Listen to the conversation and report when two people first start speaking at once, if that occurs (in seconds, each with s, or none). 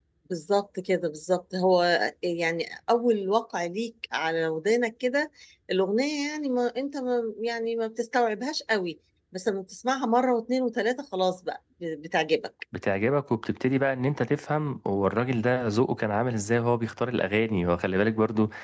none